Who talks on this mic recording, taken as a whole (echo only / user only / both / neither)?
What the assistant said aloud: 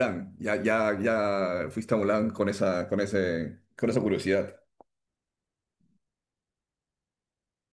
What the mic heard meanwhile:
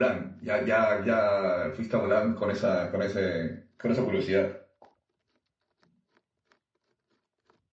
echo only